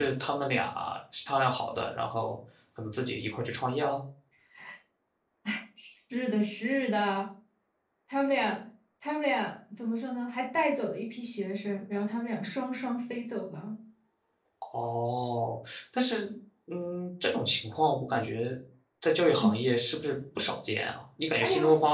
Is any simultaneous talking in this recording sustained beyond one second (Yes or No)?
No